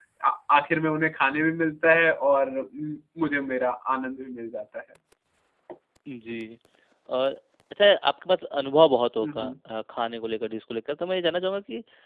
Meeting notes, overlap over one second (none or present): none